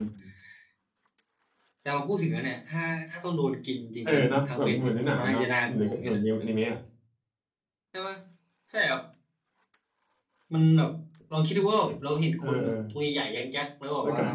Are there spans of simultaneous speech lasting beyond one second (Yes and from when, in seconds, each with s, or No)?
Yes, from 4.0 s